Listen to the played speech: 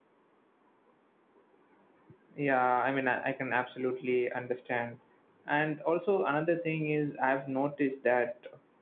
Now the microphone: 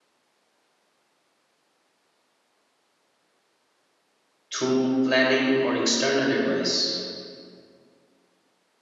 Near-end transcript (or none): through planning or external advice.